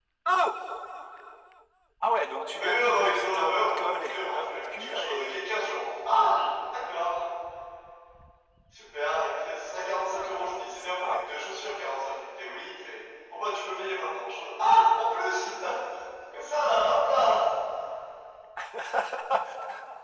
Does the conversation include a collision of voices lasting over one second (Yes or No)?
Yes